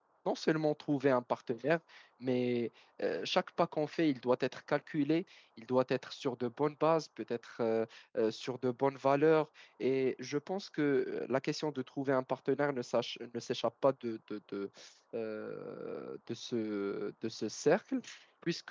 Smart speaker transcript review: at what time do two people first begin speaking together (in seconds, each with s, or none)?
none